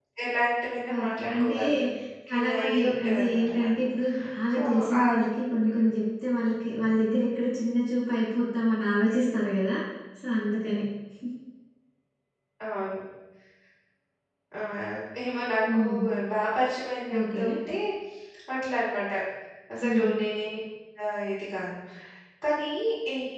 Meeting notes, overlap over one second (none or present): present